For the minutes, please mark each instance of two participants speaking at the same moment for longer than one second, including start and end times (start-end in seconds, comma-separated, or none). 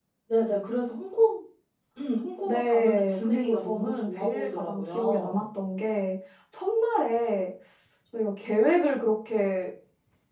2.5-5.4